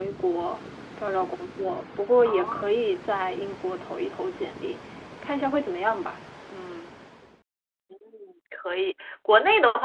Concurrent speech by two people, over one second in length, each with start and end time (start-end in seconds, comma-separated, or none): none